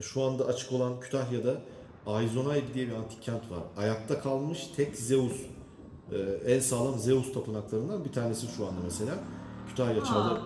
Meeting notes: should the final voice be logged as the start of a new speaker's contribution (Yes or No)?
No